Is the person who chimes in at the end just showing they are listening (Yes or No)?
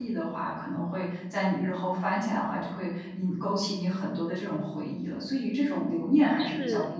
No